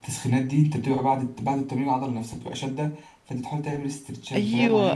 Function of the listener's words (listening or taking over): taking over